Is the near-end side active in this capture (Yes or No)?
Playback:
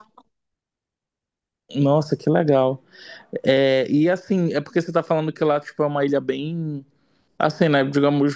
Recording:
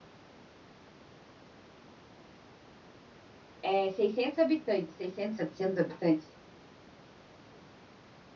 Yes